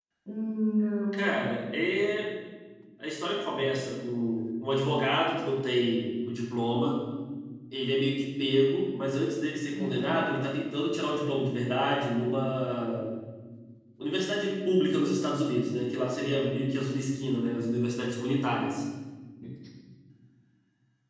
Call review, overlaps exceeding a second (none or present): none